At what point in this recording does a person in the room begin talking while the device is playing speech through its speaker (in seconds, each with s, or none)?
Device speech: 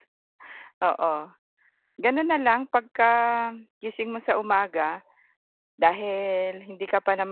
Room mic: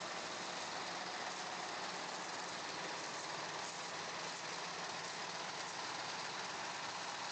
none